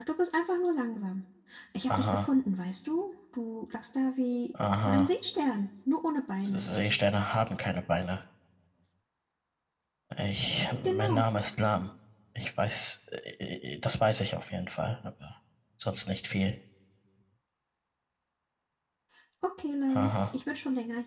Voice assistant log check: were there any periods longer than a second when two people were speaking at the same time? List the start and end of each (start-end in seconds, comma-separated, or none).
none